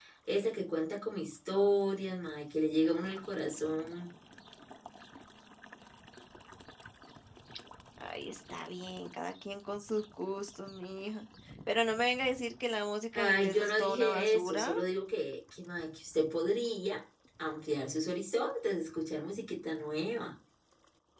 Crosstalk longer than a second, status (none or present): present